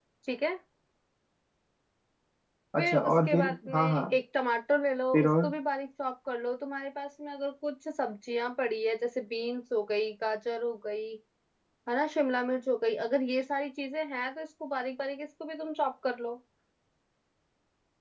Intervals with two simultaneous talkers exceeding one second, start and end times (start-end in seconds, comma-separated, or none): 2.8-4.0